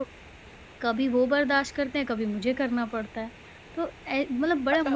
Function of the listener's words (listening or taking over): listening